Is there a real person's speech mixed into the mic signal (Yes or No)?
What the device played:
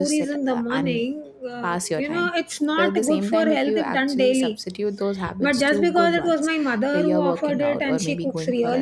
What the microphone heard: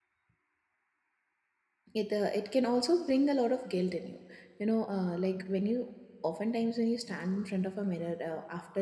Yes